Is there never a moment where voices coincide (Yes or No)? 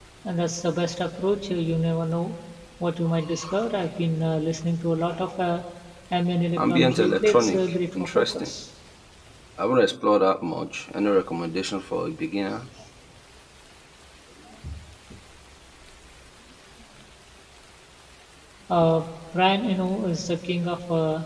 No